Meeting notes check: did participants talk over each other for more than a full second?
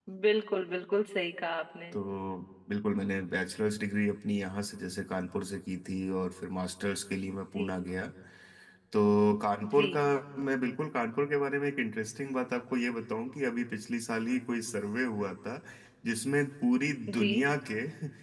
No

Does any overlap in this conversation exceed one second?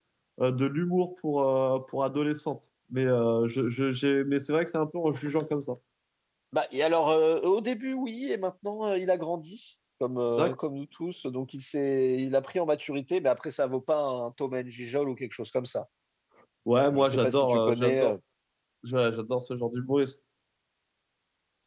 Yes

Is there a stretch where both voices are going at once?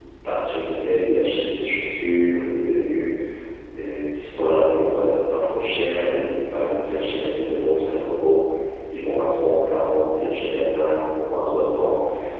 No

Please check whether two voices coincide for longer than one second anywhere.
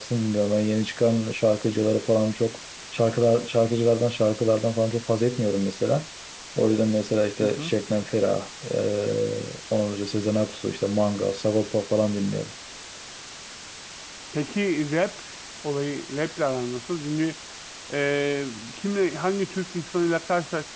No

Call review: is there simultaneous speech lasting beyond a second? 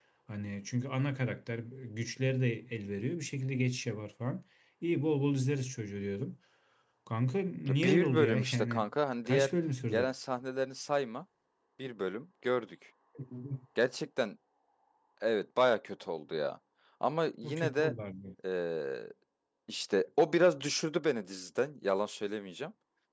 Yes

